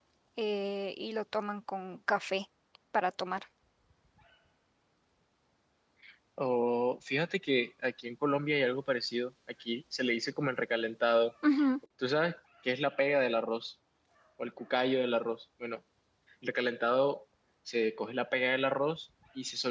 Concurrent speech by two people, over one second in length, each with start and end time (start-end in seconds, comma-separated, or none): none